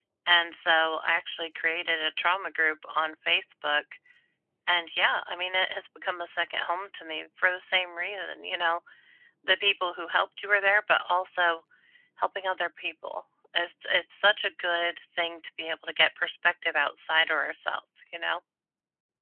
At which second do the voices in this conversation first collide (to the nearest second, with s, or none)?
none